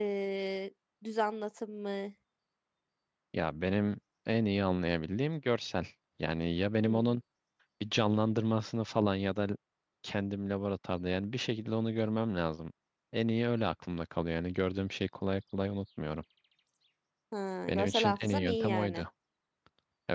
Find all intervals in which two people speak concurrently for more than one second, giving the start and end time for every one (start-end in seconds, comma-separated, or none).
17.7-19.0